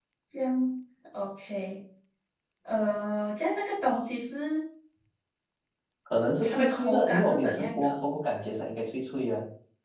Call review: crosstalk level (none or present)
present